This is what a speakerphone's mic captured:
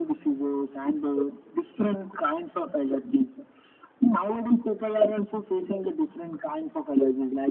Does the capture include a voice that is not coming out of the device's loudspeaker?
No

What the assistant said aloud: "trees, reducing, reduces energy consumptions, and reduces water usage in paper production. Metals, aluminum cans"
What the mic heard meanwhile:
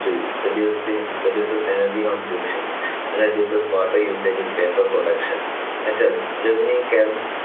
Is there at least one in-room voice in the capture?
No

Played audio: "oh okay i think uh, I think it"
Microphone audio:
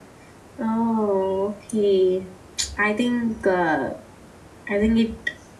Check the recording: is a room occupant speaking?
No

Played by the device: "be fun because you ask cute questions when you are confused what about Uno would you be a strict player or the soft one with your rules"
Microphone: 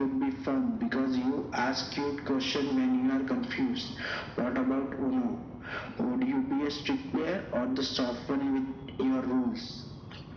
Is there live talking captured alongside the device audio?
No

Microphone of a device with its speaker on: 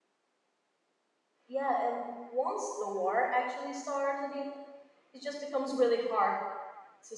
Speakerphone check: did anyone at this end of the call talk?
Yes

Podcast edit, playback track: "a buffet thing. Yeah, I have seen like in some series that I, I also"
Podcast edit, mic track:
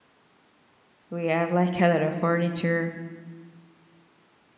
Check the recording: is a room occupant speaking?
Yes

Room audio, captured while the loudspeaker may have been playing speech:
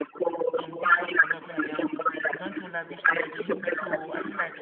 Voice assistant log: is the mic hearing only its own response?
No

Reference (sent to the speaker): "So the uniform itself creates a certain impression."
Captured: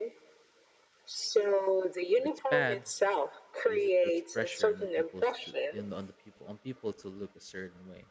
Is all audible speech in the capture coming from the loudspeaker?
No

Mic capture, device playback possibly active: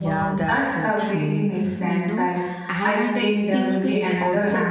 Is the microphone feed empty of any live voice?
No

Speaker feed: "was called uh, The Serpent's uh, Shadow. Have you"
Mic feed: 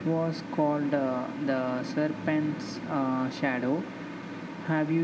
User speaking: No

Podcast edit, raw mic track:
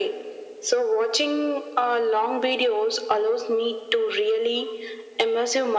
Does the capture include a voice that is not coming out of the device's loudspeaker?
No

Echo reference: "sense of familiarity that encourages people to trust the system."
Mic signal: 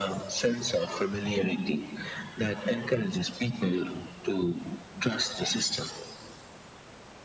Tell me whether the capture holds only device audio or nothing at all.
Yes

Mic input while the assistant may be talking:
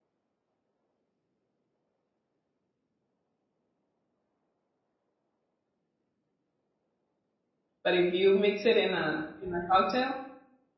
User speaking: Yes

